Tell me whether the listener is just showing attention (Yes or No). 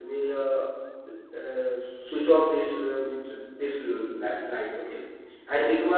Yes